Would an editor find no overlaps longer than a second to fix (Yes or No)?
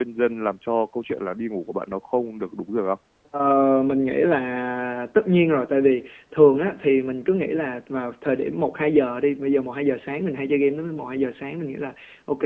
Yes